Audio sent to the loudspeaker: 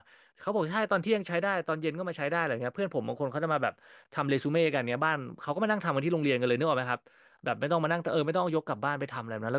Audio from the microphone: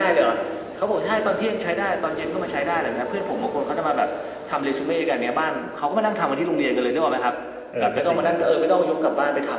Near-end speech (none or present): present